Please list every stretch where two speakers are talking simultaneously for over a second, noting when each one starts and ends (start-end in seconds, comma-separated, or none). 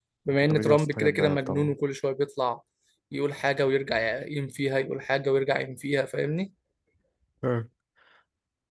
0.5-1.8